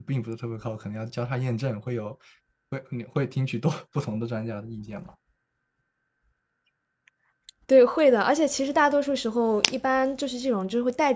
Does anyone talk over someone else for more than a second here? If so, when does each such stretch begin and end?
none

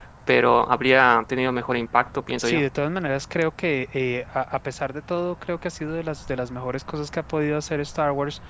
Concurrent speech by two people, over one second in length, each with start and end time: none

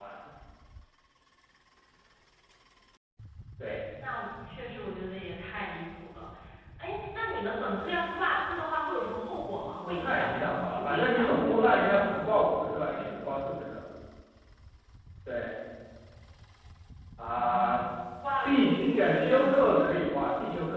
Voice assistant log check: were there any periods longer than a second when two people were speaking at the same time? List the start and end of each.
9.8-12.1, 18.4-19.7

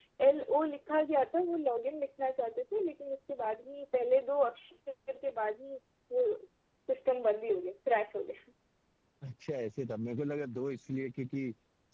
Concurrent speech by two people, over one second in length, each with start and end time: none

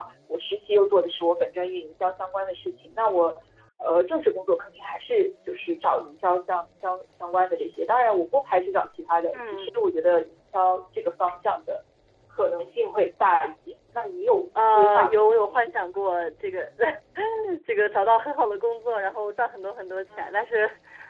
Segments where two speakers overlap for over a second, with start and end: 14.7-15.9

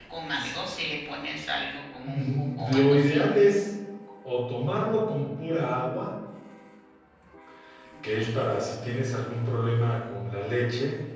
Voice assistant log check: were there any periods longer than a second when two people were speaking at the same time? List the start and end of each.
2.0-3.2

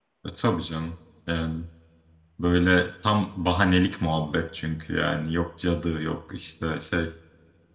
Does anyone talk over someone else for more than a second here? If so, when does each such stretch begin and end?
none

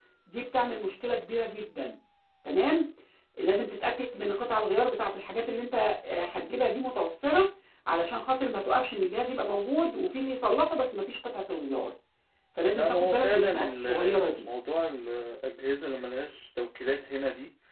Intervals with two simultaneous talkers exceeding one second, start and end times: 12.7-14.5

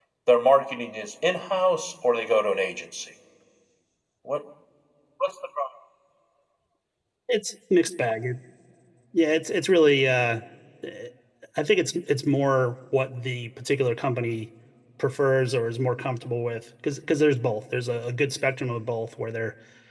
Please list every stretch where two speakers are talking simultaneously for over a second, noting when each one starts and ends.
none

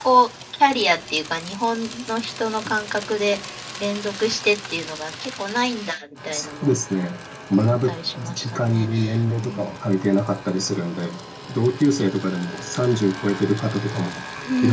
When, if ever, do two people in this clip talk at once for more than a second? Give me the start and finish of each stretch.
7.5-8.9

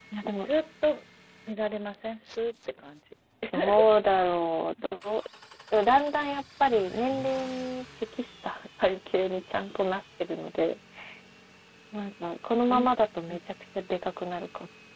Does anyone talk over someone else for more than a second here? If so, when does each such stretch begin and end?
none

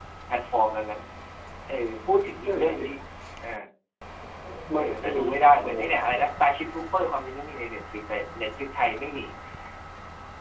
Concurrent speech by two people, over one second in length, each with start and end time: 4.8-6.2

